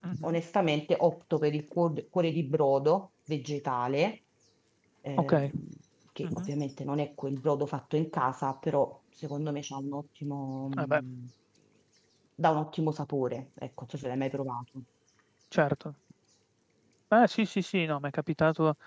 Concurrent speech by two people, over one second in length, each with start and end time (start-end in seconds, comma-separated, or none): none